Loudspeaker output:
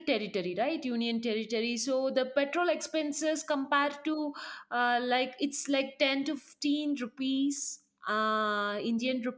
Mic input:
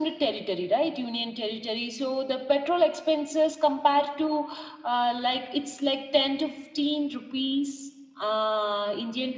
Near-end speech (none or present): none